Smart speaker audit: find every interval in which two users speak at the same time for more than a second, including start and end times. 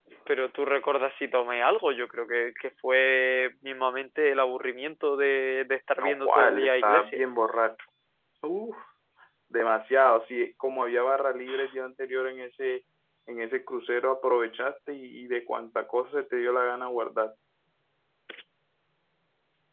6.0-7.2

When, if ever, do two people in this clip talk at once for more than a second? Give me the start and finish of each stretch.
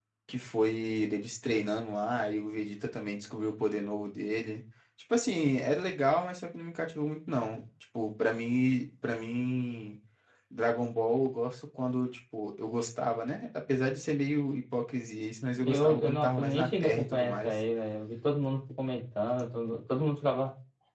15.5-17.5

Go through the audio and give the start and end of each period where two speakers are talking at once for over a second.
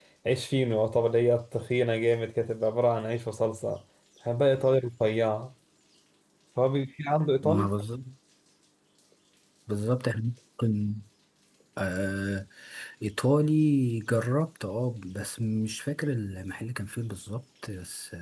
none

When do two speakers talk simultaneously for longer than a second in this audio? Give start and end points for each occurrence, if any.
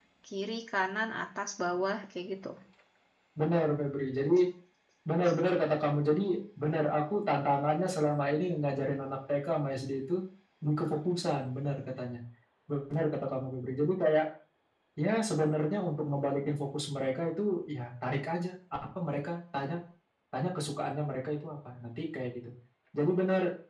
none

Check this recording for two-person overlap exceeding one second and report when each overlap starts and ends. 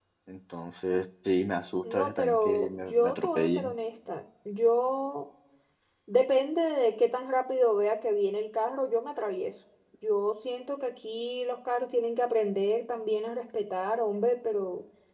1.8-3.7

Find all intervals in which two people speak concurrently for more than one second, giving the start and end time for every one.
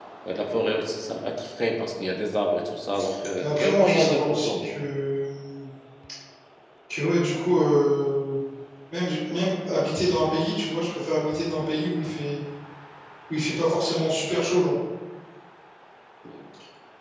3.4-4.7

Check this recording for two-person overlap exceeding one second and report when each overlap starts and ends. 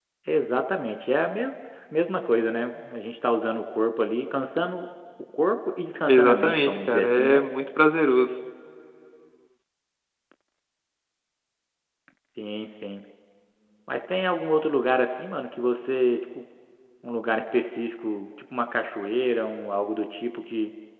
6.0-7.4

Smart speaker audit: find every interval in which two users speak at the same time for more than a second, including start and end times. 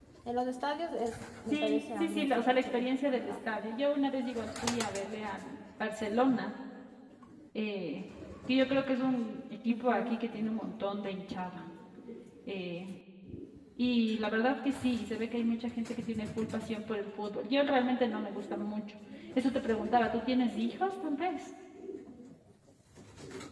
1.5-3.4

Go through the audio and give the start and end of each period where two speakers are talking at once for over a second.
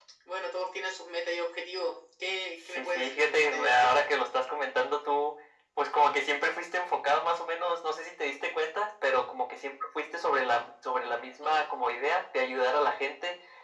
2.8-4.0

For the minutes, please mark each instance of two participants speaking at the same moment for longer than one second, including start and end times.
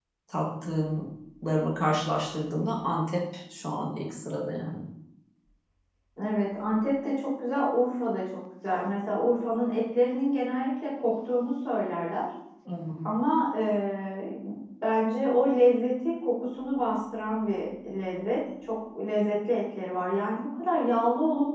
none

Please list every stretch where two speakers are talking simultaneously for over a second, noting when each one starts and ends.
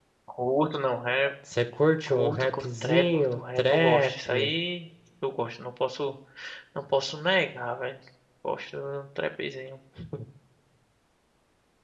2.1-4.5

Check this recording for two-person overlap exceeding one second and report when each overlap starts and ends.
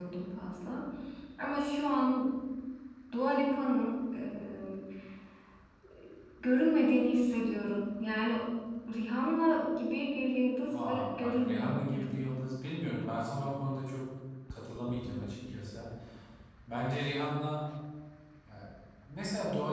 10.7-12.2

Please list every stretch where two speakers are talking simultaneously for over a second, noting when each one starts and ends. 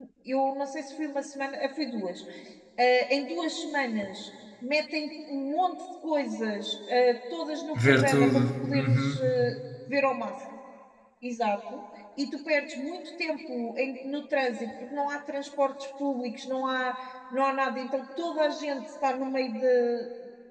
7.8-9.3

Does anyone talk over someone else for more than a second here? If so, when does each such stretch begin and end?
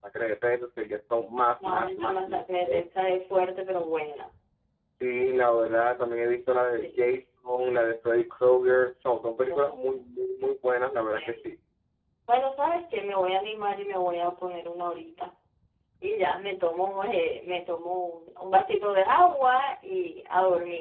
1.6-2.8

